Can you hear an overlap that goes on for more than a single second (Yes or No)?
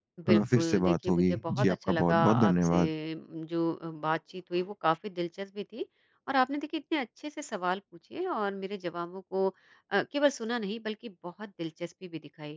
Yes